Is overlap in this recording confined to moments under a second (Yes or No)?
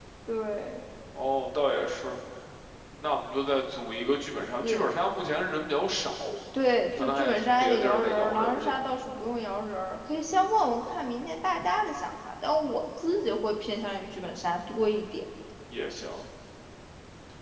No